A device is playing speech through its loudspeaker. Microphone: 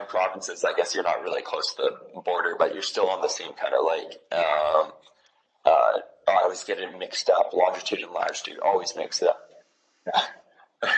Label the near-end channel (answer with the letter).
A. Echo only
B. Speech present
A